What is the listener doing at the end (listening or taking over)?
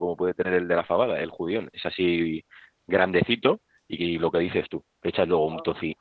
listening